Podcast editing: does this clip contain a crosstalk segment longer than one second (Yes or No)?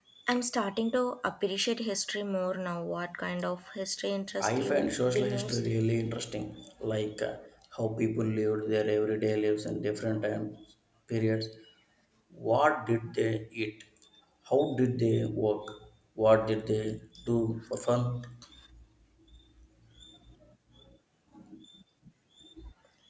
Yes